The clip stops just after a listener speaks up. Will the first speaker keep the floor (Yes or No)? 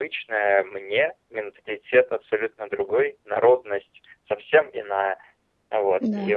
Yes